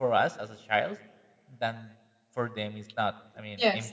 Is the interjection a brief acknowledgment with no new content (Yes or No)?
Yes